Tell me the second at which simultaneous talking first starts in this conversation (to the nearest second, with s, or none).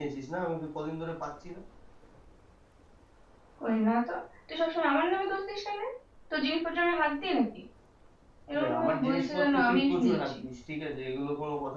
9 s